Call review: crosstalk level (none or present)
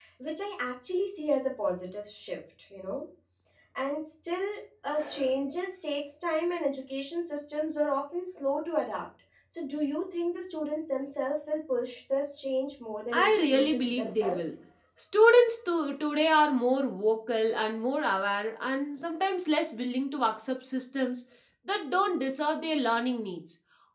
present